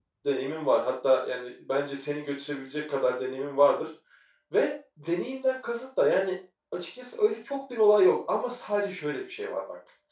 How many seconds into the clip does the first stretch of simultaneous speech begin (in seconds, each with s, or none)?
none